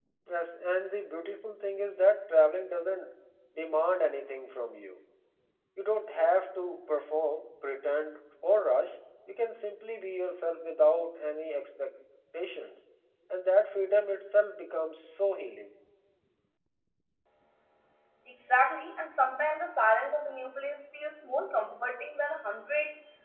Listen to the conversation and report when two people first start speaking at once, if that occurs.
none

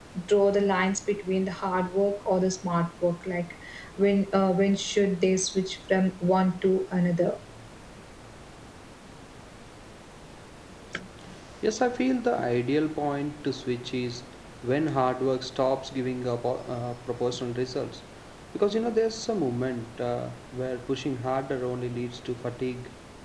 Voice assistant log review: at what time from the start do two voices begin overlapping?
none

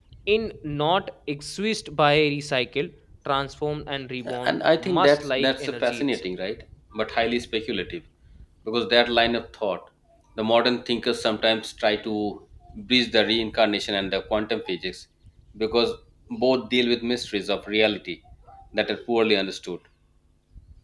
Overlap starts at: 4 s

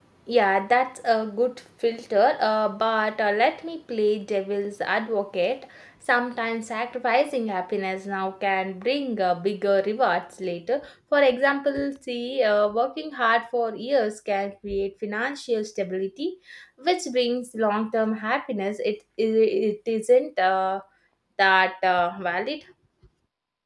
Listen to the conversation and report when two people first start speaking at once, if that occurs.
none

